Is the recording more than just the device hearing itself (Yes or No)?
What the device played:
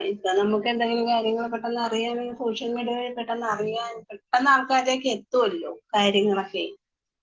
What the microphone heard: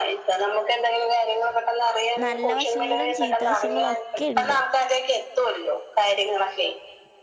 Yes